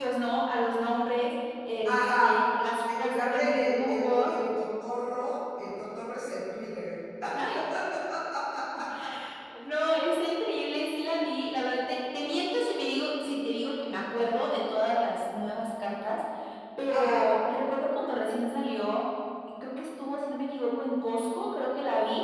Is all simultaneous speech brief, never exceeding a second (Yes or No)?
No